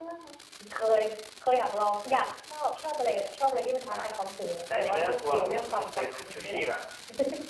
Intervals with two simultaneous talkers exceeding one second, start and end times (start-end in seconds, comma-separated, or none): 4.8-6.6